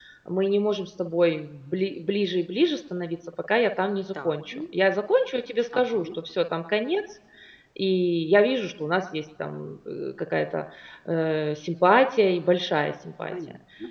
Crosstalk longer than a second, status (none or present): none